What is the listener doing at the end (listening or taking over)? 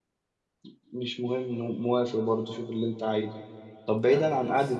listening